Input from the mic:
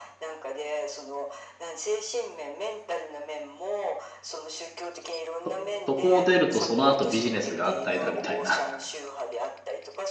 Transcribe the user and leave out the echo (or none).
そ、そこを出るとその後ビジネスが安泰だみたいな